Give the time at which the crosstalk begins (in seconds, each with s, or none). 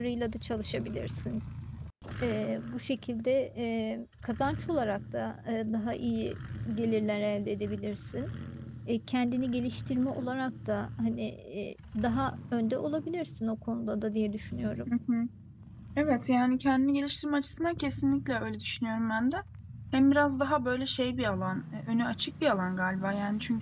none